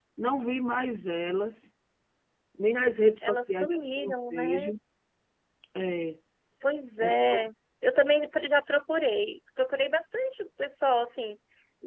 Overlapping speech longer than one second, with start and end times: 3.2-4.7

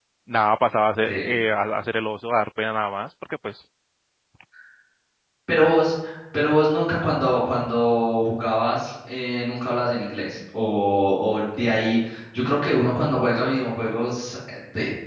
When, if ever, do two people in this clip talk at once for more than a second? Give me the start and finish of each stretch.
none

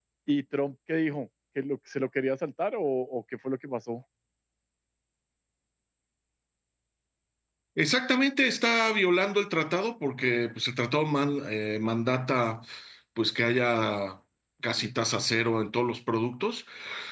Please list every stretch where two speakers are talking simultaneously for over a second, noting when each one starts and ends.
none

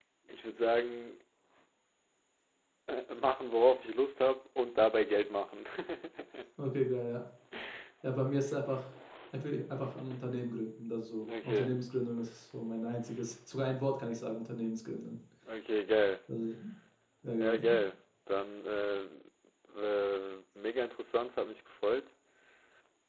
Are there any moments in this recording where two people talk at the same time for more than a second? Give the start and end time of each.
none

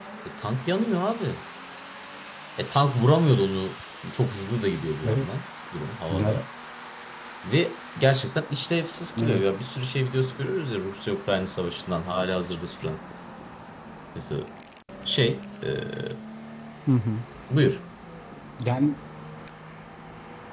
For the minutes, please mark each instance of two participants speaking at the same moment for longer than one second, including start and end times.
none

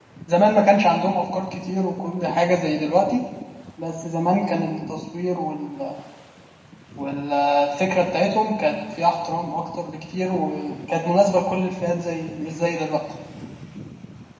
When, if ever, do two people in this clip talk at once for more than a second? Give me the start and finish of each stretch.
none

